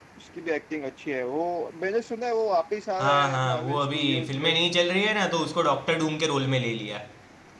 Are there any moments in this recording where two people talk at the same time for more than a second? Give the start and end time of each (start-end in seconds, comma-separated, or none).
3.0-4.6